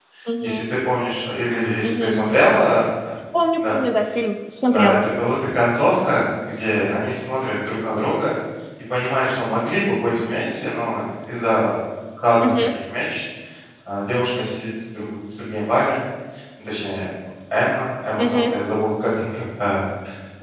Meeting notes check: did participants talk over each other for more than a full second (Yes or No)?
No